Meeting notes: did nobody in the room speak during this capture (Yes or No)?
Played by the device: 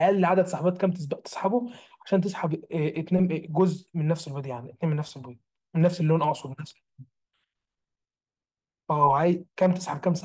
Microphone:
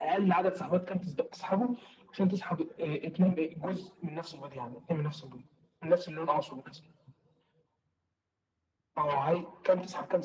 Yes